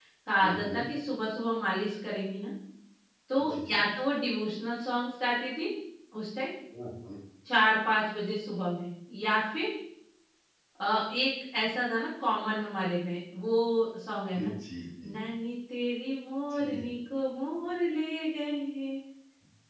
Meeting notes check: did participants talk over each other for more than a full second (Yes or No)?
No